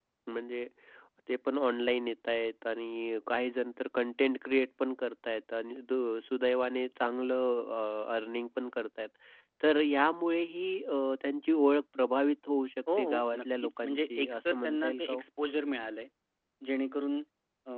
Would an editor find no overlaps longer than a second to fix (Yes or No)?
No